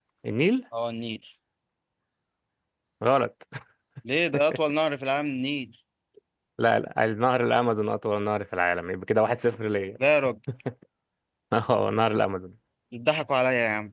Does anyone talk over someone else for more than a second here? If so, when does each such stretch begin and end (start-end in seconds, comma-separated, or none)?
none